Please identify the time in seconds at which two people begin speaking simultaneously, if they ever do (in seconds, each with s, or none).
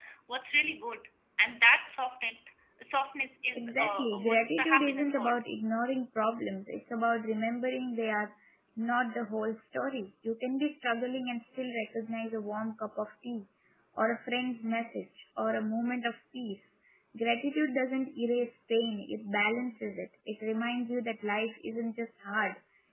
3.6 s